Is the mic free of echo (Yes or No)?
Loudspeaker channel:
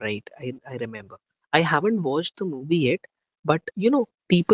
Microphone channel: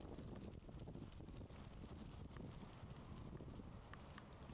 Yes